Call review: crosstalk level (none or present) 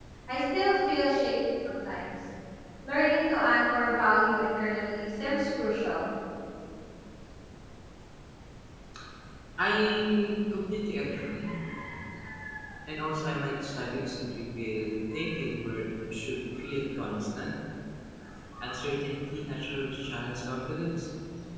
none